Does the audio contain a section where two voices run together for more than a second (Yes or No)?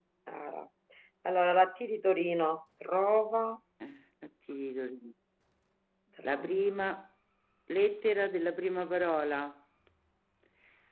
No